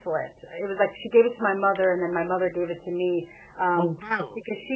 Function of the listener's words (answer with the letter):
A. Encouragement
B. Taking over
A